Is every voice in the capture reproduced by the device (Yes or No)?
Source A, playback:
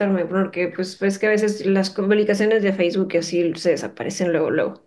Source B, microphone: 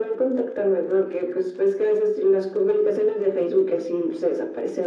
Yes